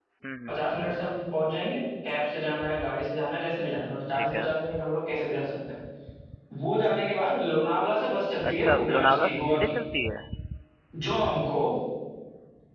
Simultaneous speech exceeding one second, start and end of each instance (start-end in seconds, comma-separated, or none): 8.5-9.7